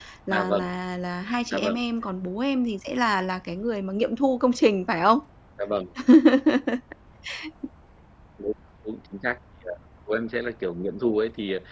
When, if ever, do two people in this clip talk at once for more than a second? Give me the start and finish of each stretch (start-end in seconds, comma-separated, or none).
none